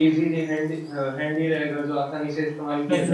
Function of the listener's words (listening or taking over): taking over